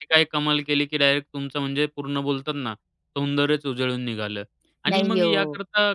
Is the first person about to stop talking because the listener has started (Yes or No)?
No